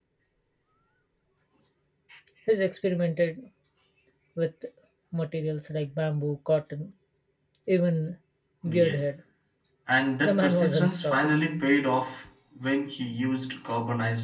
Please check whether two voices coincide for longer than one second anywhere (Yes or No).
Yes